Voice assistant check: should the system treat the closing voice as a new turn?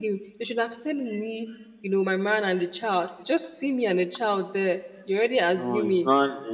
Yes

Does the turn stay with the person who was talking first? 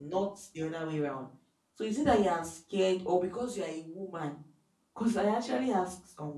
Yes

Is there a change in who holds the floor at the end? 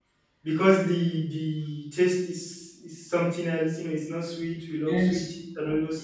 No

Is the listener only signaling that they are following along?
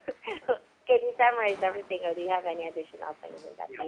No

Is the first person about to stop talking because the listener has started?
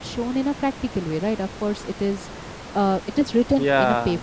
No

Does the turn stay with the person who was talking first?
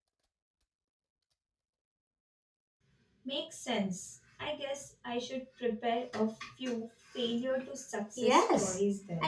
No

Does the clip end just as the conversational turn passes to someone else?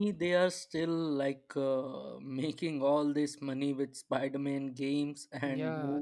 Yes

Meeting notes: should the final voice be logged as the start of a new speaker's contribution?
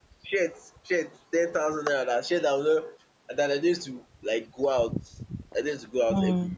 No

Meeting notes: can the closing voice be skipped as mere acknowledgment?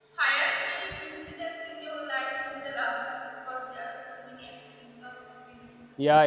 No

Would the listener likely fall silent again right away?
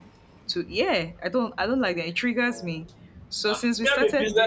No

